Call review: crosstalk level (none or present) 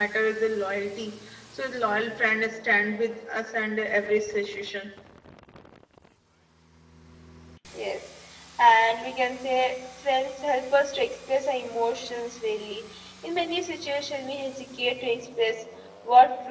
none